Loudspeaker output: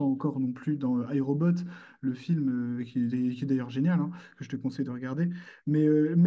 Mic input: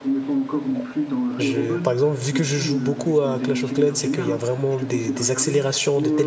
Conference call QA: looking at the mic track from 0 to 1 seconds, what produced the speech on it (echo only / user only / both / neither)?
echo only